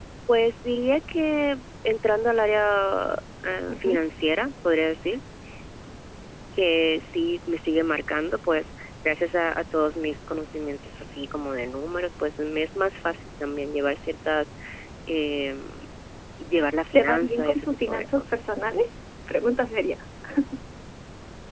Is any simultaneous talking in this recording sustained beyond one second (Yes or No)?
Yes